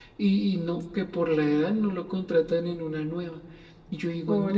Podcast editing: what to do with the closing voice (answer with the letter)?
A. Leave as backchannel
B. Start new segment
A